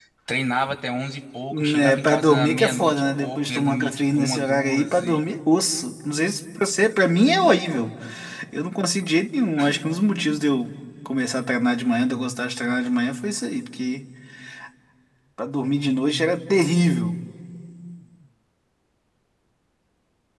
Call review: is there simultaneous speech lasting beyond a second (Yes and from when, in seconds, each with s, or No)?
Yes, from 1.5 s